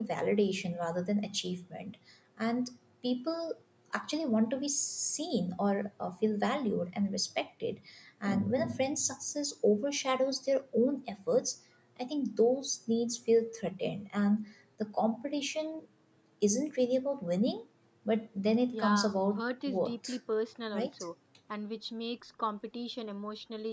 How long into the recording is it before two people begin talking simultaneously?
18.7 s

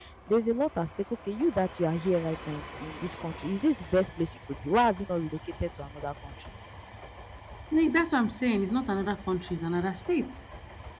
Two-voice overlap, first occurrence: none

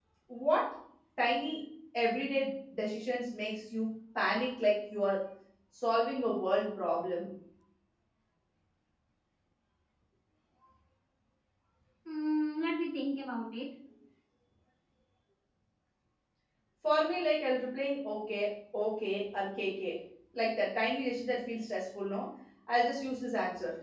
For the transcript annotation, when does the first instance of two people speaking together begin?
none

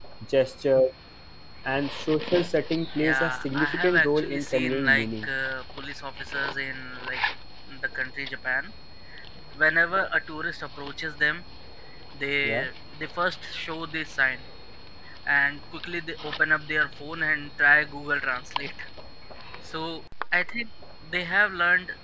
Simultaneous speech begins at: 3.0 s

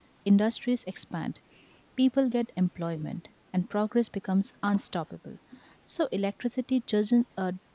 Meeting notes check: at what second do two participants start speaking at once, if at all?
none

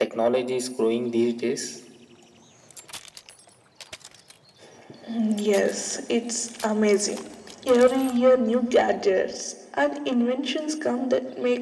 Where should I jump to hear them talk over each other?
none

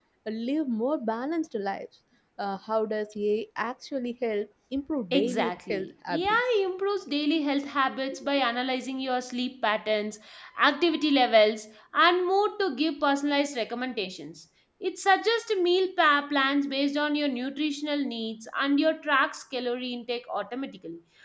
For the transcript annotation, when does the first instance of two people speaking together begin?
5.1 s

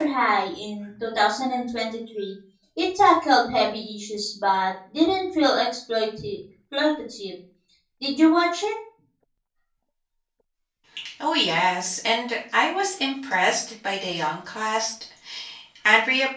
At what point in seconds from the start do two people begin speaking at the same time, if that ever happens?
none

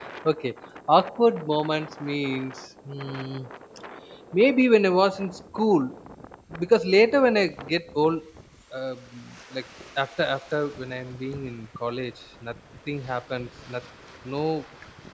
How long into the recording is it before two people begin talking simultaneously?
none

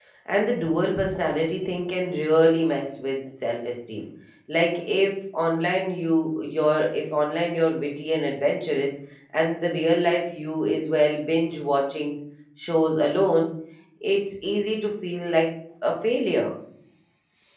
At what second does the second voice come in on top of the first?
none

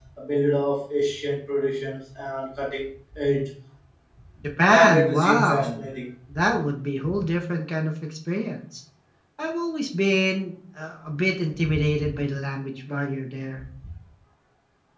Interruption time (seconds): 4.6 s

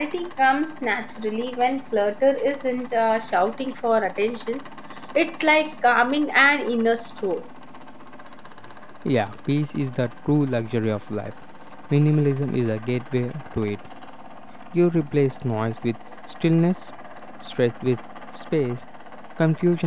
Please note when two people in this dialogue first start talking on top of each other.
none

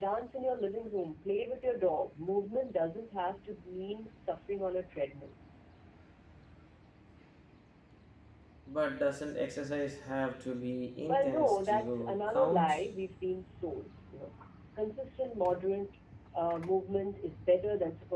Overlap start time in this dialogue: 11.1 s

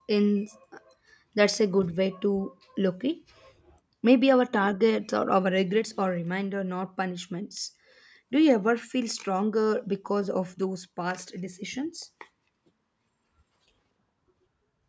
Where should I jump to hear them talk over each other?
none

